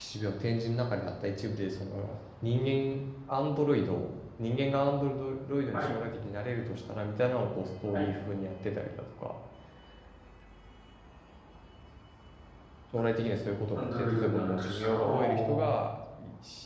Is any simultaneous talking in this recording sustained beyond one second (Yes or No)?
Yes